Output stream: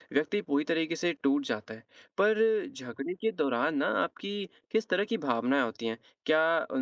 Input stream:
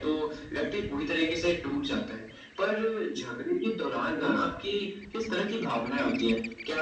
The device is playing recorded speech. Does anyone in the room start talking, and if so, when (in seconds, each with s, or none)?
none